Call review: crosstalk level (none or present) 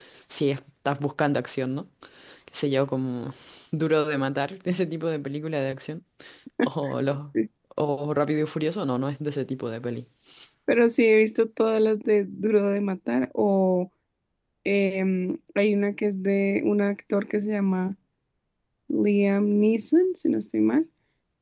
none